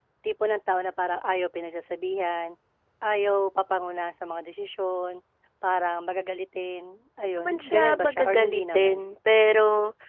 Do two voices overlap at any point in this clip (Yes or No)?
Yes